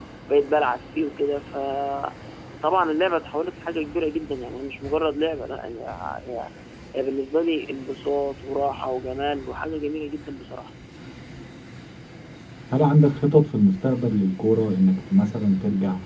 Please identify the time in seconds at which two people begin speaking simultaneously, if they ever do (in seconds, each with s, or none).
none